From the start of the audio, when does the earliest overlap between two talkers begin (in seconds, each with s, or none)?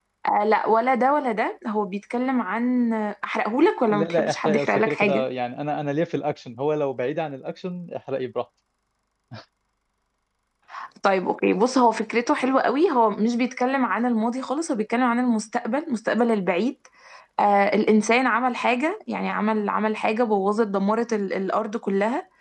3.9 s